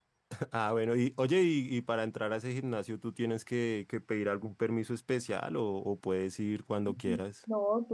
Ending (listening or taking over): taking over